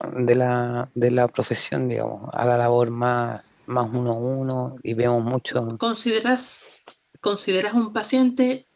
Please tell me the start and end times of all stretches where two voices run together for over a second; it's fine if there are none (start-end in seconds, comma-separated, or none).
none